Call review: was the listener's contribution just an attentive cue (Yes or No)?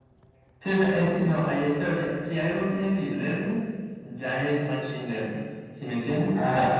No